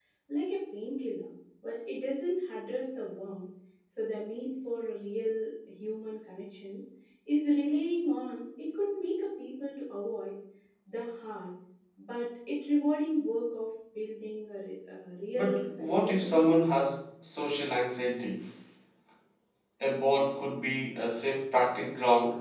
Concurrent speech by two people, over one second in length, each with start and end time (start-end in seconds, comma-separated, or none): 15.3-16.6